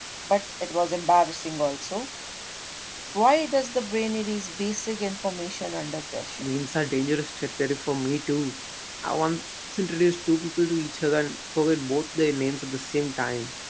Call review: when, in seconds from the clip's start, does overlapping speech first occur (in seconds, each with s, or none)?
none